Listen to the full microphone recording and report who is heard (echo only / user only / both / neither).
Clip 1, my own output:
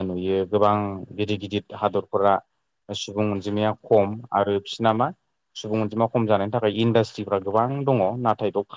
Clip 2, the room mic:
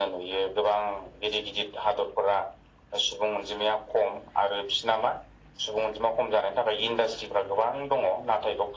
echo only